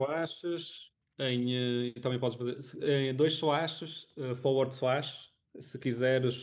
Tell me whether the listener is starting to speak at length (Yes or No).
No